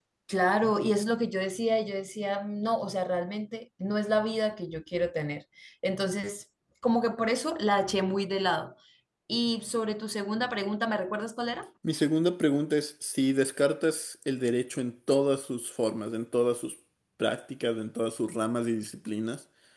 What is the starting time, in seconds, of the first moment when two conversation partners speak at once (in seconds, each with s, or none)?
none